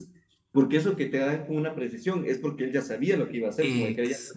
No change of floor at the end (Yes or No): Yes